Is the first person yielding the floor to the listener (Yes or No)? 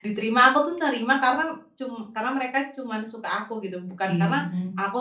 No